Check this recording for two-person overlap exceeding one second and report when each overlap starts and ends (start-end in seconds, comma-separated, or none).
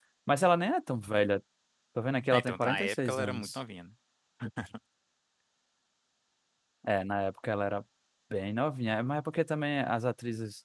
2.3-3.6